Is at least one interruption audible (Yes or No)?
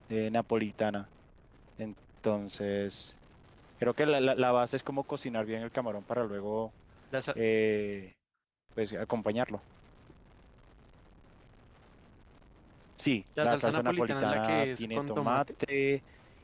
Yes